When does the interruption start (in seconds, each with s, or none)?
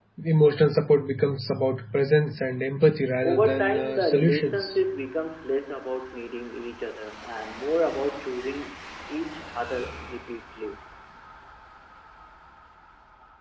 3.2 s